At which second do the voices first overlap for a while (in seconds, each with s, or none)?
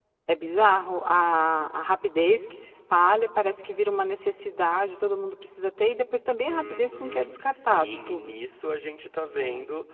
6.5 s